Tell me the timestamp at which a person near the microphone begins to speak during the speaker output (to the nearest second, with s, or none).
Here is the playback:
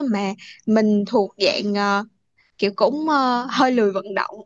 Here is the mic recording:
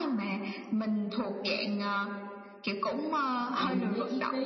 4 s